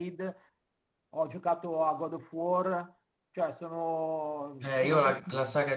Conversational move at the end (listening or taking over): taking over